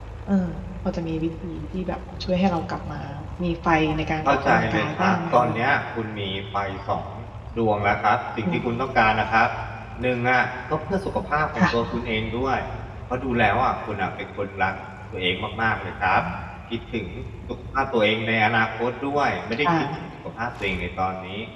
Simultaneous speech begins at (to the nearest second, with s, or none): 4 s